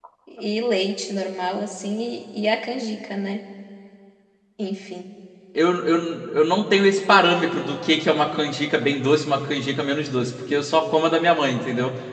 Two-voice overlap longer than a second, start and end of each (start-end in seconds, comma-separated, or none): none